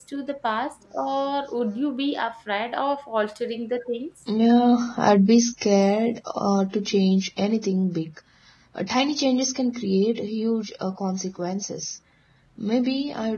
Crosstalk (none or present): none